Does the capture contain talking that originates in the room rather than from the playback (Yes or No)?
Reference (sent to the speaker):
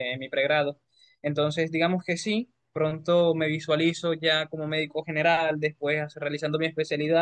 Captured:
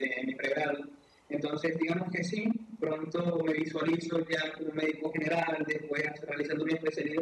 No